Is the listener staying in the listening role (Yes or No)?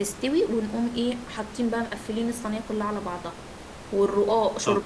Yes